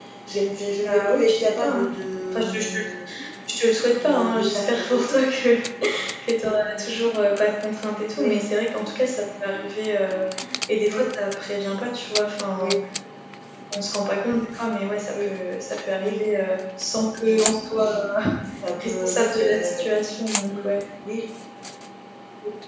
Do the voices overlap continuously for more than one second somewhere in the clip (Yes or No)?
Yes